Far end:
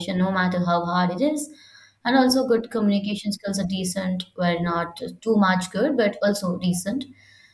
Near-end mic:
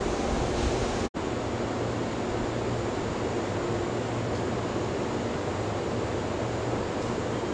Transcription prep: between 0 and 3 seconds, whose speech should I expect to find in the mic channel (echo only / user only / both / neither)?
neither